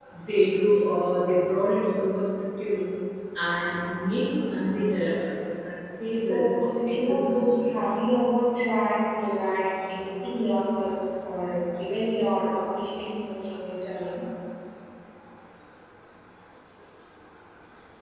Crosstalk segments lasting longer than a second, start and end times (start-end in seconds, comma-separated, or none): 6.1-7.6